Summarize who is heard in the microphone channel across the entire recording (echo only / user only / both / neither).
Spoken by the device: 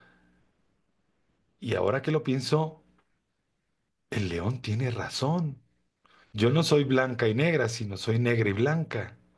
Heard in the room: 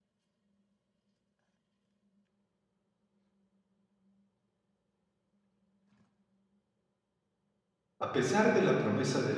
user only